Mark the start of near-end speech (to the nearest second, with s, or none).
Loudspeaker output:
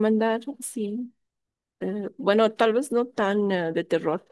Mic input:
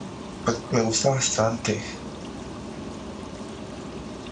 0 s